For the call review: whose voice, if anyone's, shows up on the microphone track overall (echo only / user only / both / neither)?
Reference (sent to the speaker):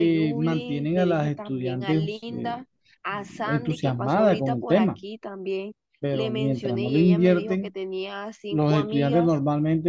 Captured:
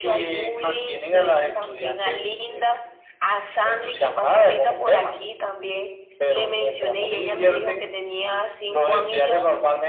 echo only